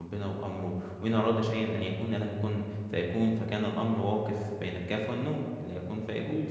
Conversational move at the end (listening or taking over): listening